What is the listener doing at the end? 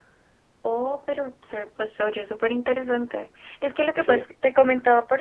listening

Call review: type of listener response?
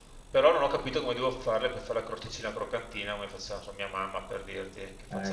taking over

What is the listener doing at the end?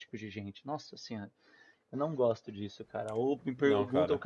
listening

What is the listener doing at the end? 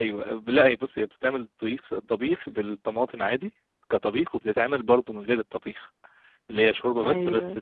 listening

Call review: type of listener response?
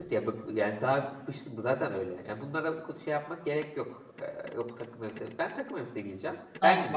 taking over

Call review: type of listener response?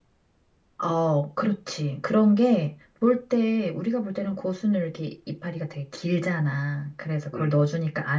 listening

